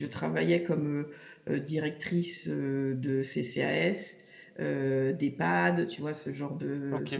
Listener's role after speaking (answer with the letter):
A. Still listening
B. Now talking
A